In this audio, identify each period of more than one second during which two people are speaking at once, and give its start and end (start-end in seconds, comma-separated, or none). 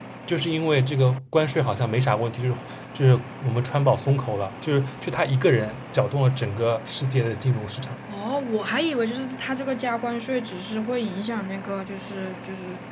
none